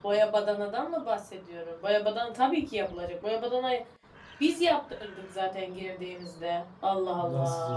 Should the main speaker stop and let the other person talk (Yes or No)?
Yes